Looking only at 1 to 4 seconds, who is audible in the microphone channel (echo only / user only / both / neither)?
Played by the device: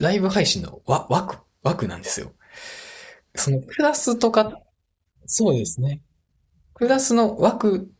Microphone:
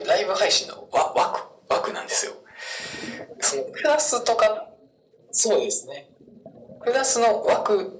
echo only